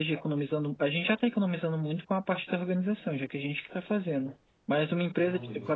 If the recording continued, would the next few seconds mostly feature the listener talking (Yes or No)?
No